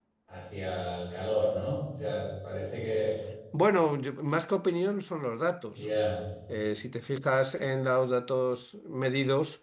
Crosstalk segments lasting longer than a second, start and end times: none

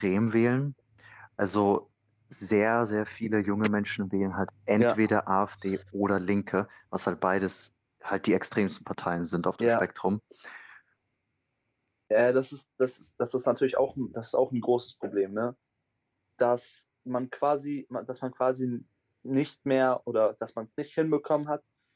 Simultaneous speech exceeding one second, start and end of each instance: none

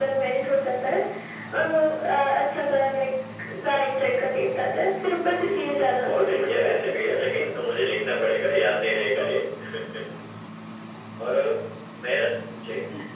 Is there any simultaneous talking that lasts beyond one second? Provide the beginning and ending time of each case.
5.4-7.2

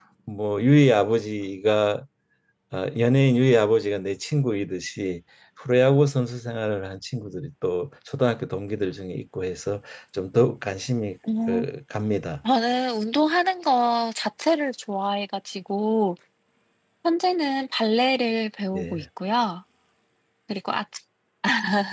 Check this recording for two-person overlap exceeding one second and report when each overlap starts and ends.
none

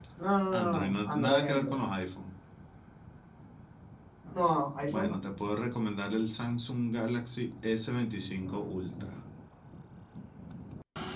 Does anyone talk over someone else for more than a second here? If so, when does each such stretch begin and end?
0.6-1.8

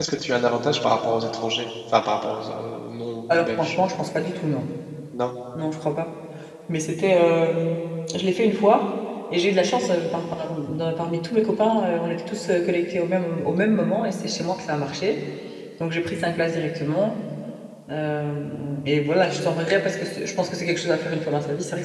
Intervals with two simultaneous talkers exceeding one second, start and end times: none

